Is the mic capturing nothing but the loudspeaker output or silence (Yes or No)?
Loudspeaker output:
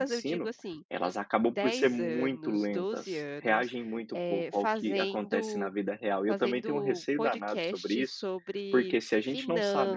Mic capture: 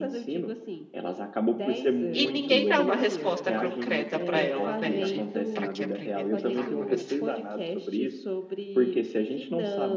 No